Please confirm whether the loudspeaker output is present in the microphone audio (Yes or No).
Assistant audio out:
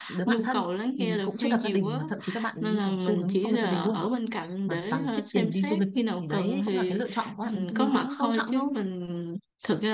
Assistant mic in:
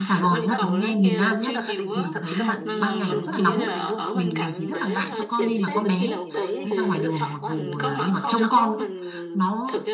Yes